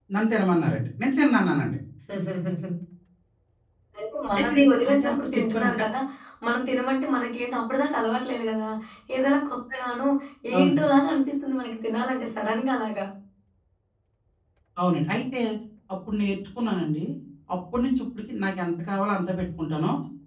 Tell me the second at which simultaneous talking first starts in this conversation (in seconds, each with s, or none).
4.4 s